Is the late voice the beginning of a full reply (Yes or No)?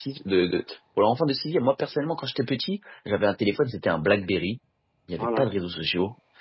No